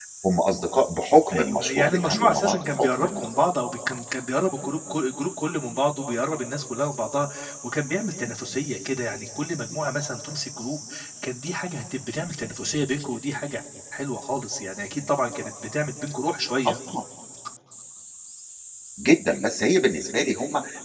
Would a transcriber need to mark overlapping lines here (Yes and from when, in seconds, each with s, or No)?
Yes, from 1.3 s